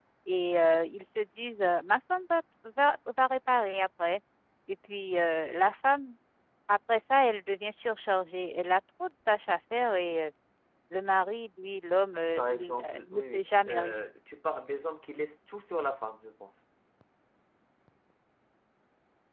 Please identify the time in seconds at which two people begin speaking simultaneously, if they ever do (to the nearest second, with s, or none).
12 s